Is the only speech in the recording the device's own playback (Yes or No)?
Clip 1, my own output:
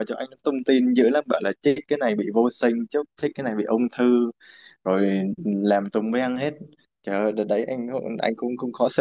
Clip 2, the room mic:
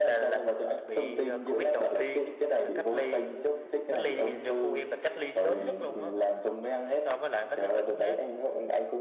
No